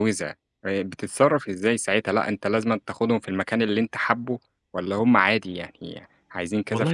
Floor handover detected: Yes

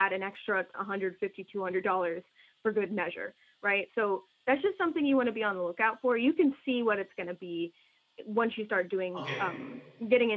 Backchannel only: Yes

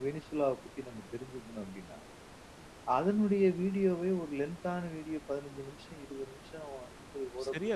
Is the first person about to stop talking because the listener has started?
Yes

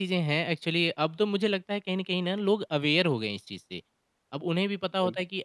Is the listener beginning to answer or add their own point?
No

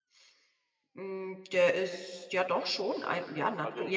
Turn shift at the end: Yes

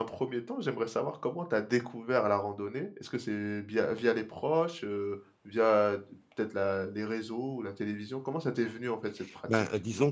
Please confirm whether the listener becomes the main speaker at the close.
Yes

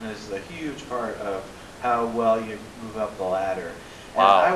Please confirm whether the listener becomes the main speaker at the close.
Yes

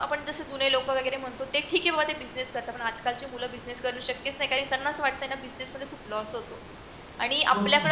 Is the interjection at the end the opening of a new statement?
No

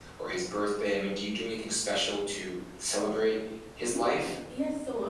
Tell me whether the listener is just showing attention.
No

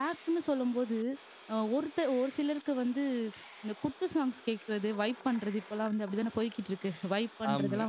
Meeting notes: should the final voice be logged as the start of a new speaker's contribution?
No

